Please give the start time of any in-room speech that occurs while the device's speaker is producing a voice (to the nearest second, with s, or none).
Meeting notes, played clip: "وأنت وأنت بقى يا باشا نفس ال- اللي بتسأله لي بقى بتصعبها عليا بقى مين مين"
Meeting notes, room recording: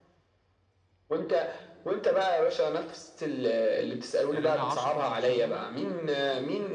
4 s